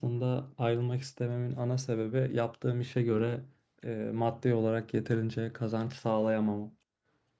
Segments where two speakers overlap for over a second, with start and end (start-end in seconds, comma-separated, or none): none